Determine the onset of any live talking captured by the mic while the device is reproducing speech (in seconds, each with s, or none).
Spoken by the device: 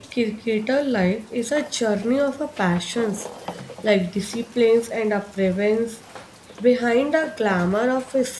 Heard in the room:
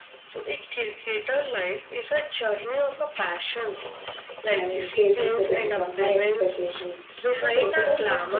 4.5 s